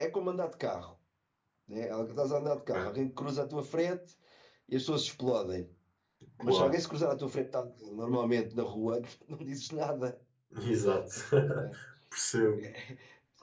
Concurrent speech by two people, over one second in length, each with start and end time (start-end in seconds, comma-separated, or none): none